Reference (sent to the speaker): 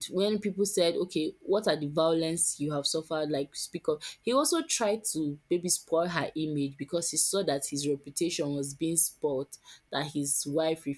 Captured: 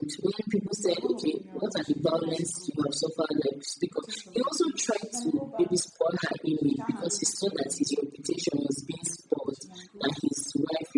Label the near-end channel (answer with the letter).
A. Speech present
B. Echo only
A